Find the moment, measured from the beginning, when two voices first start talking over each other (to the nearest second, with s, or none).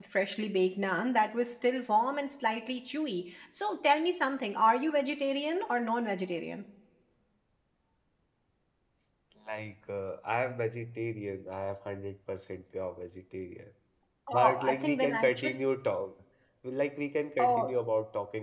14 s